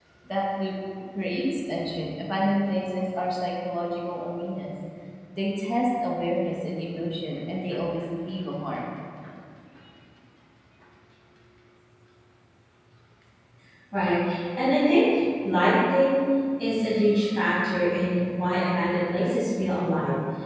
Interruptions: none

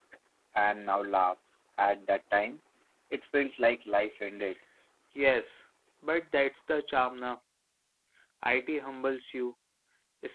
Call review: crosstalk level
none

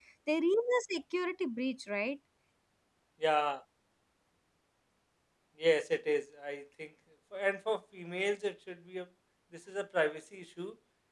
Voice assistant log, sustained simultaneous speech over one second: none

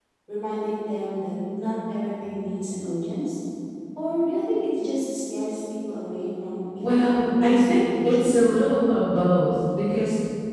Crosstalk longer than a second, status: present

